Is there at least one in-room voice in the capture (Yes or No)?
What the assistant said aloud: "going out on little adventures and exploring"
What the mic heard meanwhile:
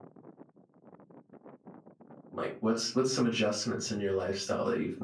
Yes